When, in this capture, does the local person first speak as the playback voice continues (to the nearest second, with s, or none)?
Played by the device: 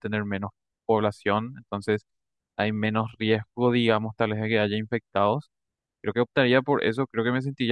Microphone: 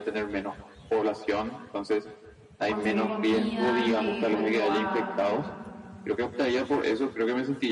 3 s